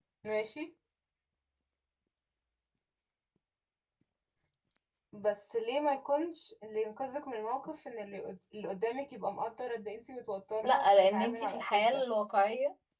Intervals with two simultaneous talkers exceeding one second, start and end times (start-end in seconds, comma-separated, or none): 10.6-12.0